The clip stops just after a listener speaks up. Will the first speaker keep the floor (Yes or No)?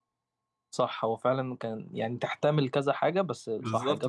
No